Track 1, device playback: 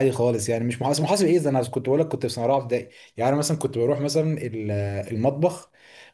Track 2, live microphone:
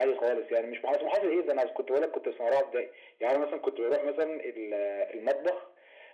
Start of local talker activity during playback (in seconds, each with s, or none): none